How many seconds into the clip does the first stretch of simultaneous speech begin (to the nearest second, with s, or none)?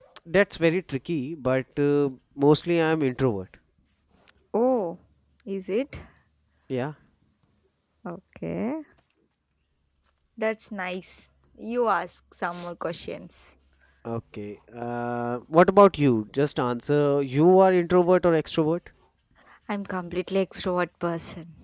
none